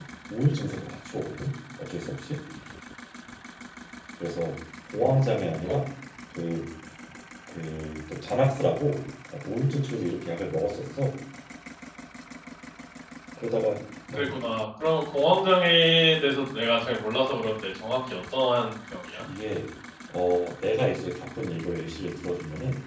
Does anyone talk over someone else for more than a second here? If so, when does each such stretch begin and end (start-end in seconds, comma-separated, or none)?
none